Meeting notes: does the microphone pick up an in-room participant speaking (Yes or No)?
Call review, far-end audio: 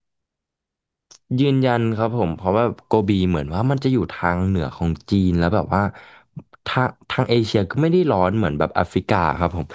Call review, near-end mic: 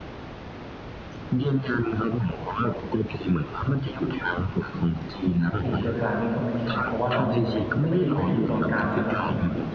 Yes